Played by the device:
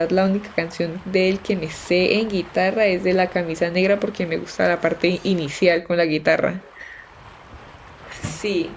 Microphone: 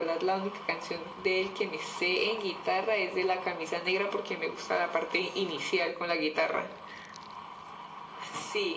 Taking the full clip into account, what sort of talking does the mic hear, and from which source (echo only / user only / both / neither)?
echo only